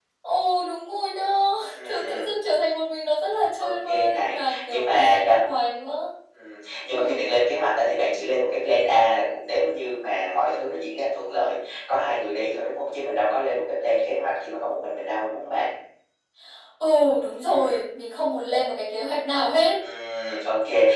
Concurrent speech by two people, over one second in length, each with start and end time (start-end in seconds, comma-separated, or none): 3.6-5.4